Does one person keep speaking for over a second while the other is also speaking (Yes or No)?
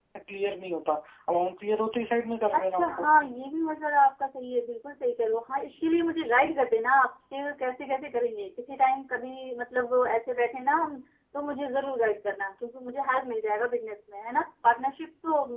No